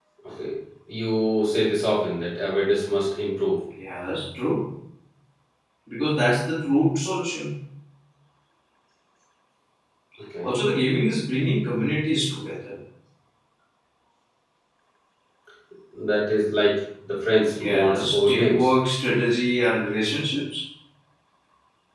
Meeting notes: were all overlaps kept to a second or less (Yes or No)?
No